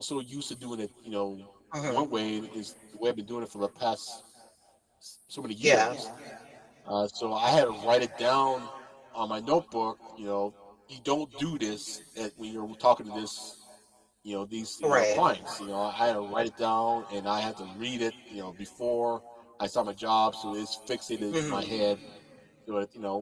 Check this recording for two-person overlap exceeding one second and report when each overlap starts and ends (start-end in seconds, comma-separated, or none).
none